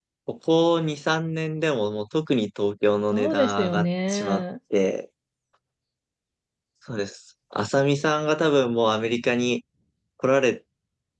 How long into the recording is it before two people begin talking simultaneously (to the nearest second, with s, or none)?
3 s